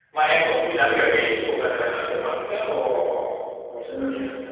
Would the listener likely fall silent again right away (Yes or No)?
No